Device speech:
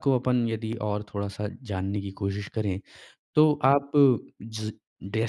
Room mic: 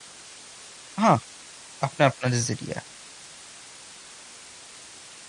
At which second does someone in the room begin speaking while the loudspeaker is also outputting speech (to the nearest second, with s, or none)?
1 s